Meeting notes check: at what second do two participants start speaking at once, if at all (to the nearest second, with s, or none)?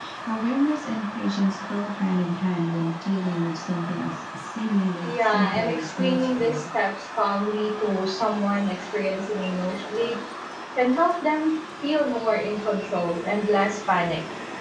5 s